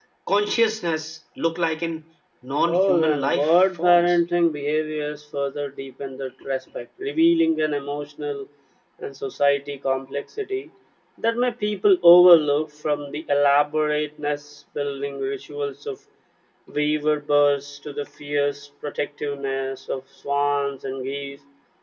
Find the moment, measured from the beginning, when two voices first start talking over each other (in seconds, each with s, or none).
2.6 s